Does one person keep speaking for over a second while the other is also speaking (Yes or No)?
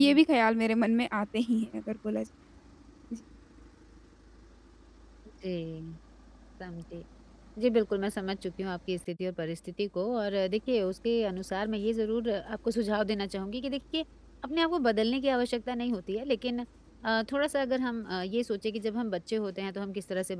No